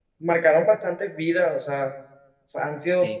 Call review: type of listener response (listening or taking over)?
listening